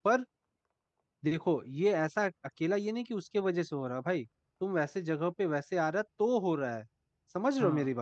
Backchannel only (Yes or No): No